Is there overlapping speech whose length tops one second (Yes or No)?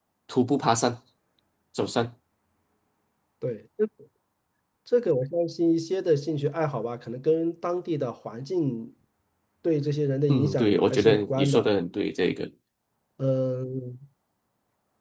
Yes